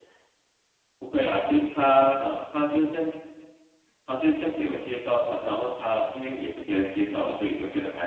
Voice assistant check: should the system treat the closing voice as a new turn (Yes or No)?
Yes